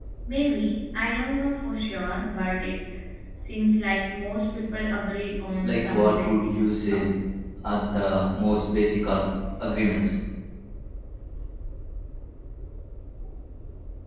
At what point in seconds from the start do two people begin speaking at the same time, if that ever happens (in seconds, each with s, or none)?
5.6 s